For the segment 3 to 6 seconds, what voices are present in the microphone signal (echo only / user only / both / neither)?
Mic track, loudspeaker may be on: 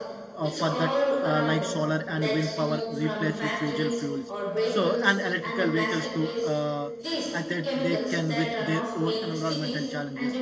both